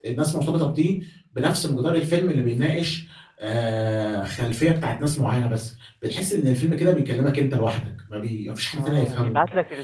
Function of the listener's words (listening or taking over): taking over